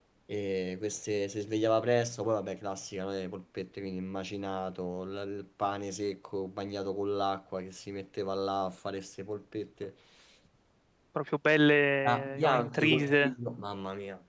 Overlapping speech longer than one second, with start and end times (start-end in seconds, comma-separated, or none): 12.1-13.3